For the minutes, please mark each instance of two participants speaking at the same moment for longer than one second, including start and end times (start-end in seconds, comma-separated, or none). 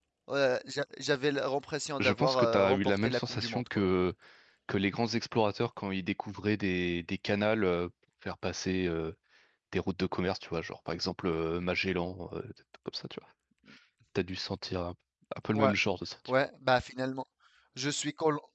2.0-3.8